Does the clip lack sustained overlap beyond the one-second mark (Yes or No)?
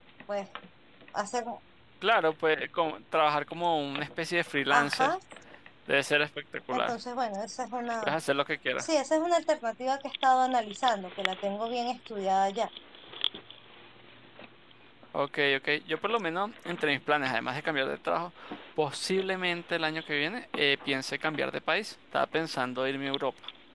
Yes